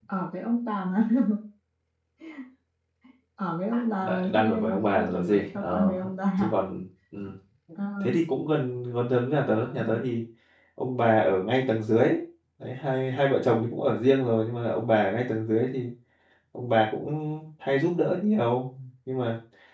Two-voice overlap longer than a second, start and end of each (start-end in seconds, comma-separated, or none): 4.0-5.9